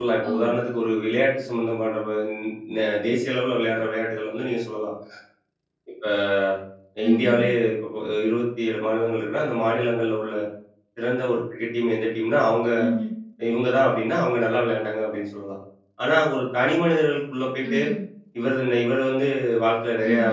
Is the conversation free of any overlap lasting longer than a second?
Yes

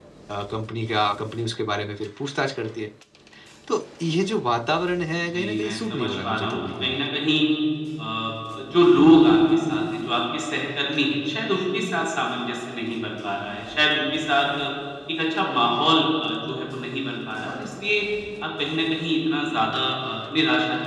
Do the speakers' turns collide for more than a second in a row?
Yes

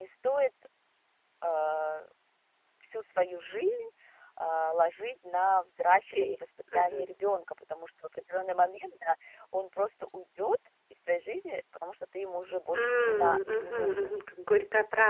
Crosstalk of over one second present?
Yes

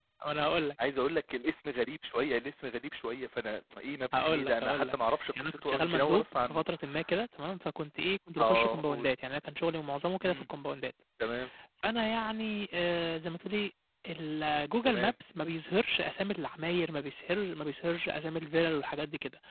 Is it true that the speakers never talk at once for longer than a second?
No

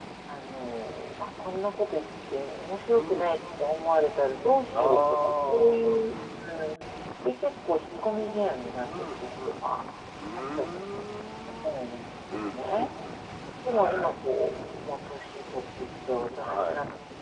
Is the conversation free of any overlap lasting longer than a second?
No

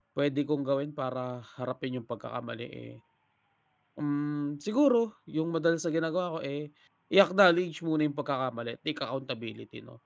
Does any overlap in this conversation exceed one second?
No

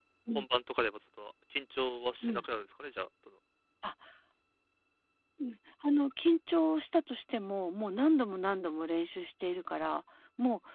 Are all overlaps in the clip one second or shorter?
Yes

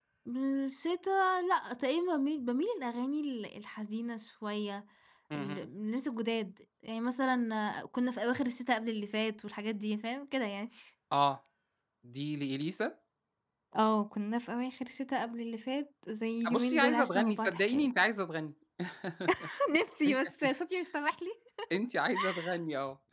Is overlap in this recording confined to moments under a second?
No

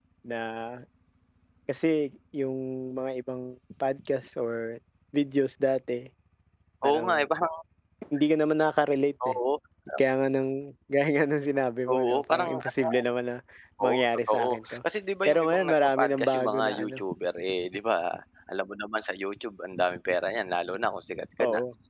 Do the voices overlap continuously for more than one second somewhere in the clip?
Yes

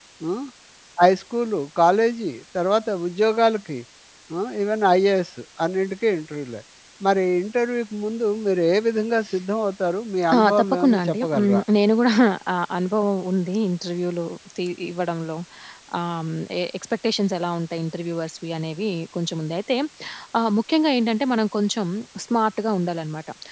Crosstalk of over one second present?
Yes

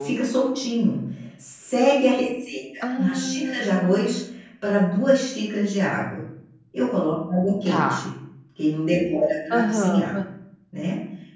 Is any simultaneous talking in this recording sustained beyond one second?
Yes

